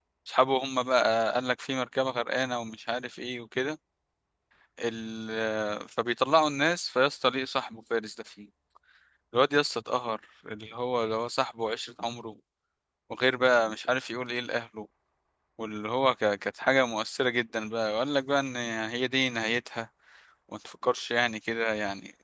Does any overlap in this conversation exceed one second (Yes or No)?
No